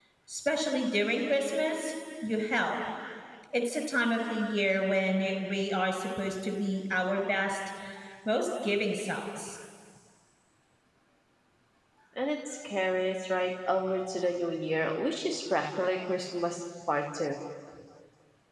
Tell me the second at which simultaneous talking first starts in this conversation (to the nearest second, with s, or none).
none